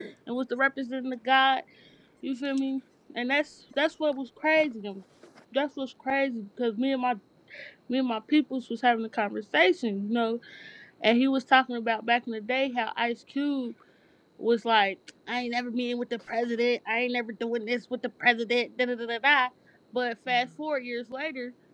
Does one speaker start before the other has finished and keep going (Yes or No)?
No